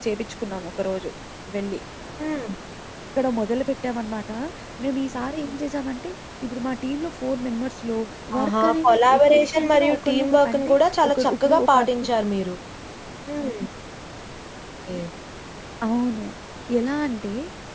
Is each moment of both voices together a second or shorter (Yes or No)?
No